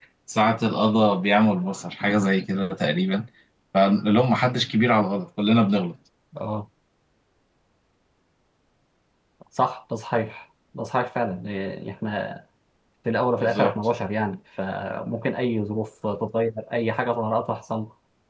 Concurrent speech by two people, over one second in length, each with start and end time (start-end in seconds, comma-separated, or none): none